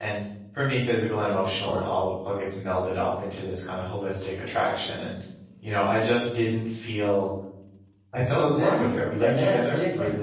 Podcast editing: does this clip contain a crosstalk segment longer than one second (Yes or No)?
Yes